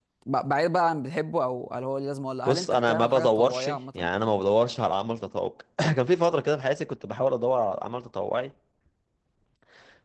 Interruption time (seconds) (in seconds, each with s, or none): 2.4 s